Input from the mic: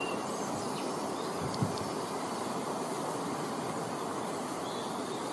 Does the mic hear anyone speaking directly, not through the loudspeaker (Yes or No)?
No